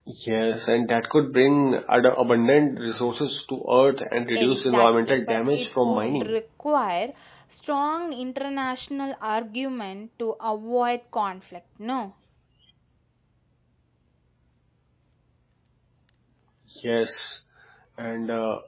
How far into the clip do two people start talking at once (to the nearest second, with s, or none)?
4 s